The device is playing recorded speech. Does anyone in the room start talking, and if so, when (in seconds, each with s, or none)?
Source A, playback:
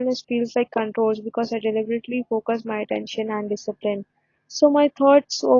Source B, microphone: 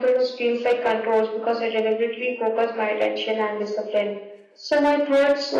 none